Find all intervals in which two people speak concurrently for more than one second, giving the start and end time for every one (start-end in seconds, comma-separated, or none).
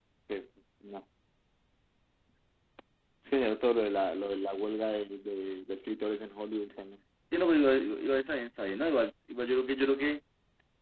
none